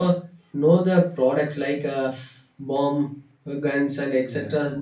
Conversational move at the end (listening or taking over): listening